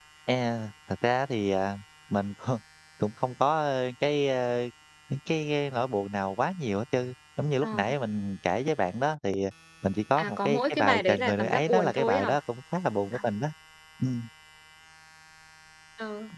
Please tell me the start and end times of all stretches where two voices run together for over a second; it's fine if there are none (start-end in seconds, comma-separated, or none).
10.2-12.3